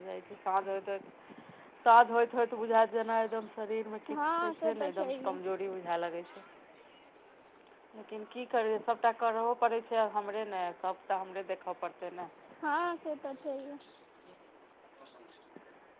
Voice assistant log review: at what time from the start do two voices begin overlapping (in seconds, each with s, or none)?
4.1 s